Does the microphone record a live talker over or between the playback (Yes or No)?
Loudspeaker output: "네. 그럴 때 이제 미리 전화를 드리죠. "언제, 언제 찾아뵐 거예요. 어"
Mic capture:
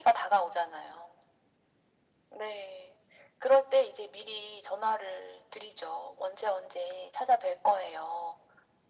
No